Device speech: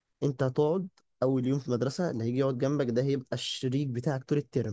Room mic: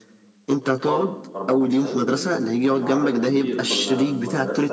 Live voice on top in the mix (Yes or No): No